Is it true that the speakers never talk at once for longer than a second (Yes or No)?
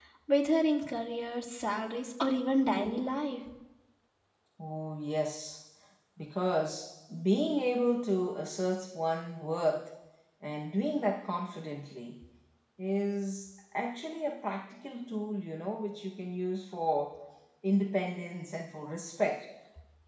Yes